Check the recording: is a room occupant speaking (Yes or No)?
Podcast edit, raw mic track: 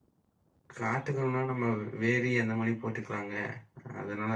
Yes